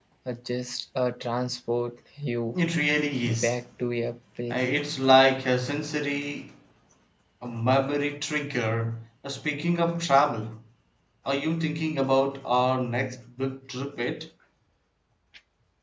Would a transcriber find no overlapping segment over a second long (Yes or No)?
Yes